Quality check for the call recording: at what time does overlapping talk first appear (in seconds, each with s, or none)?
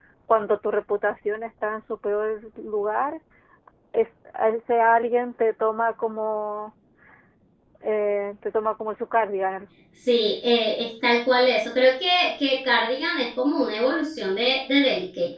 none